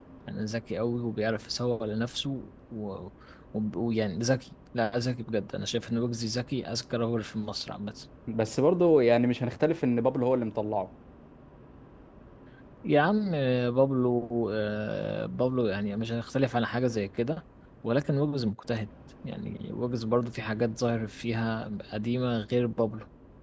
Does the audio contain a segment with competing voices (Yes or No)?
No